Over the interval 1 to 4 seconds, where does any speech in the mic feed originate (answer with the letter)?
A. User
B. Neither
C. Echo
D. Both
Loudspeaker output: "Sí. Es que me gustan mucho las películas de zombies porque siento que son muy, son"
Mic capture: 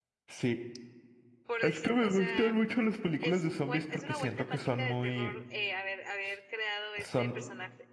D